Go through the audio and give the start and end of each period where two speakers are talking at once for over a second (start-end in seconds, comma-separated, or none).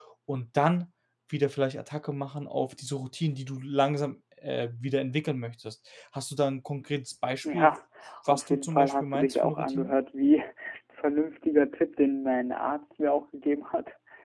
8.3-9.9